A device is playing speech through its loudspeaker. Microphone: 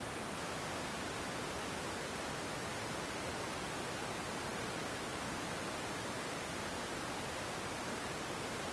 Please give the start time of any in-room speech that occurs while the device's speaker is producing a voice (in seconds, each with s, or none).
none